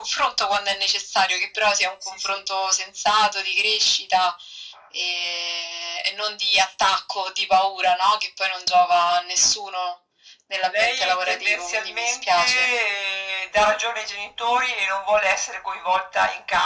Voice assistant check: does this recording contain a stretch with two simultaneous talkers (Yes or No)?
Yes